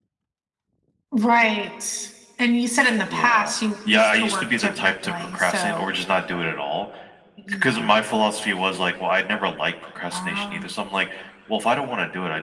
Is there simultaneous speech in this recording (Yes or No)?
Yes